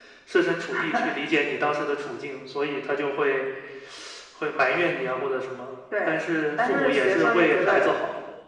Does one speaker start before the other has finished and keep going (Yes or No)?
Yes